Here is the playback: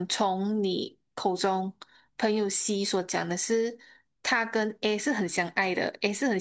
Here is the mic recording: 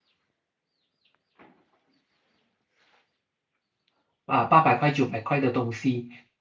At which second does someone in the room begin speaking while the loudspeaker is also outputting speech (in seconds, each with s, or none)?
4.2 s